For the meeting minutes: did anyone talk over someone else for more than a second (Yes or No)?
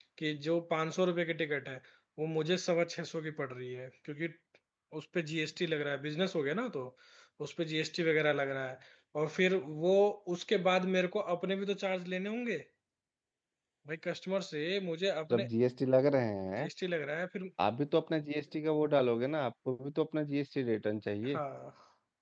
No